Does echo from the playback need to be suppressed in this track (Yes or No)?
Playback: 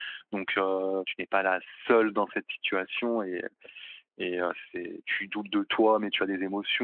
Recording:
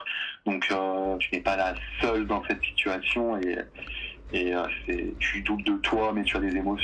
Yes